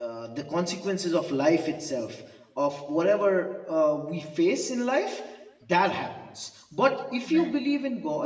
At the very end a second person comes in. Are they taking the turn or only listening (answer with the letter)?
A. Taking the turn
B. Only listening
B